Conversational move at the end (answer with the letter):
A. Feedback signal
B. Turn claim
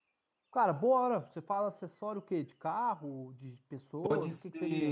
B